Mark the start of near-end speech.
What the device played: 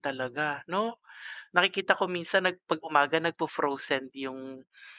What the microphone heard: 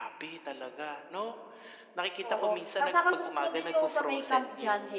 2.3 s

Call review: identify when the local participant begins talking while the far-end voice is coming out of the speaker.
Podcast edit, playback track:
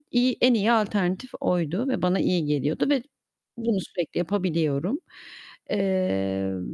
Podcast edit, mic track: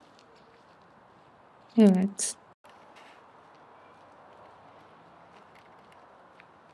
1.8 s

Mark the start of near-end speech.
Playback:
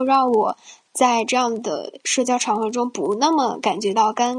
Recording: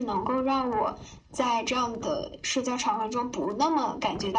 none

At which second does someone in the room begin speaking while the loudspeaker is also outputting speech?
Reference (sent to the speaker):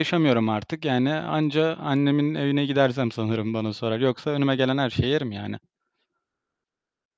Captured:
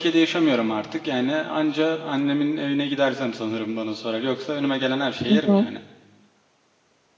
5.3 s

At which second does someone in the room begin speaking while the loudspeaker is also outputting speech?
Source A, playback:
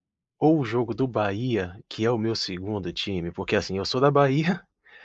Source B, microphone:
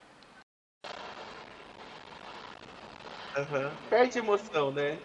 3.4 s

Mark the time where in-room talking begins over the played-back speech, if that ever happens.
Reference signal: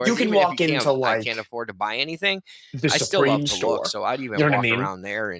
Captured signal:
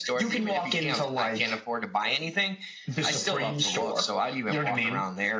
none

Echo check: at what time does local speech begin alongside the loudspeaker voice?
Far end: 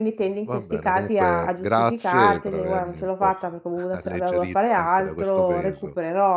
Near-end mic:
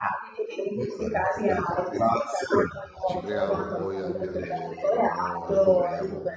3.0 s

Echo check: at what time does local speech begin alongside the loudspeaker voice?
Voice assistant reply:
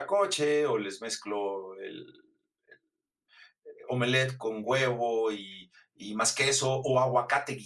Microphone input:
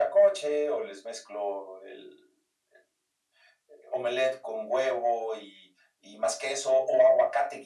none

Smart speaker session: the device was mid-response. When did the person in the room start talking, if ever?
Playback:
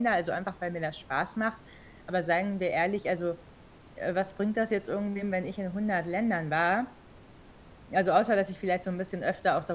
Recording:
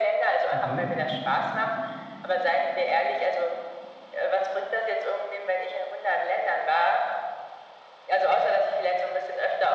0.5 s

